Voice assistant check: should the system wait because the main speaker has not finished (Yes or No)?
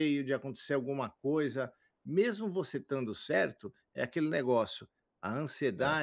Yes